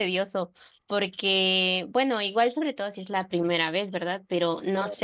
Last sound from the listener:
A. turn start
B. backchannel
B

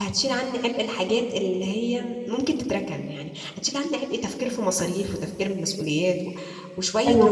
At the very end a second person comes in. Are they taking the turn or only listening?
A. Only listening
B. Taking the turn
B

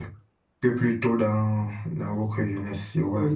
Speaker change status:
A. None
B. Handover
B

